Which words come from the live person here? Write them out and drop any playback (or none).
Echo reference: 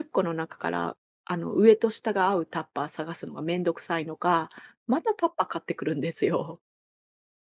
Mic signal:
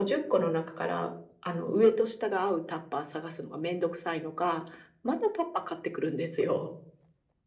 none